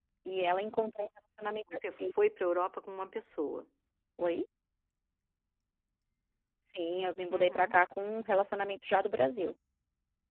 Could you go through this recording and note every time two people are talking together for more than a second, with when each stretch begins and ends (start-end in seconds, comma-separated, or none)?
none